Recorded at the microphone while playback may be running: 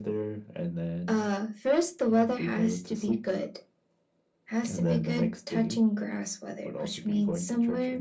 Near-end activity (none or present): none